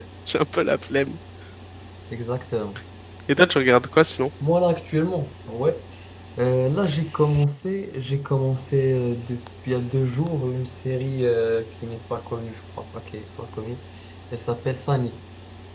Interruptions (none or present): none